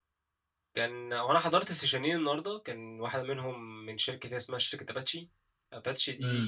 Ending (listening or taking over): taking over